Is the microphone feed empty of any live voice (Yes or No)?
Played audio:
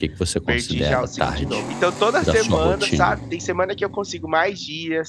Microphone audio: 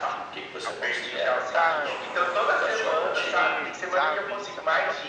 No